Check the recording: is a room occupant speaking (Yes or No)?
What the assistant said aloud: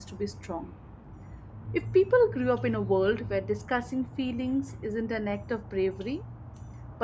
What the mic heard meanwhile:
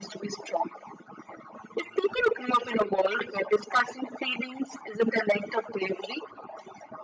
No